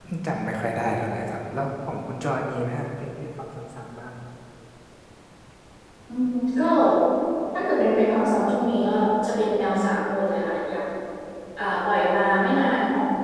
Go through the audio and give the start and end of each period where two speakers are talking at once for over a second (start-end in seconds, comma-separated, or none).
none